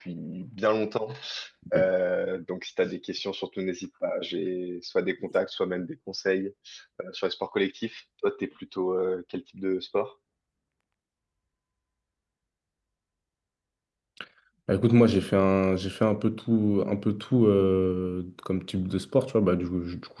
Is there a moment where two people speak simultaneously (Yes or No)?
No